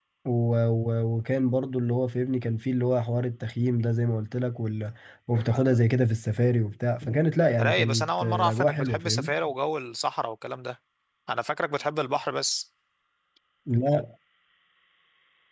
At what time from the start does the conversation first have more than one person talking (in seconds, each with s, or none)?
7.6 s